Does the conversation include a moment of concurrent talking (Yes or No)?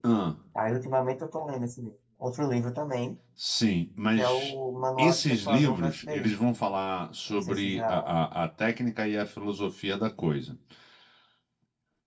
Yes